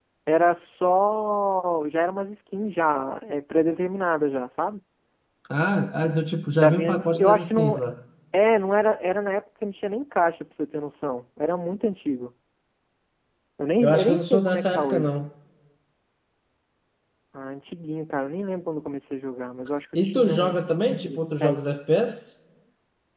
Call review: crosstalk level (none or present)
present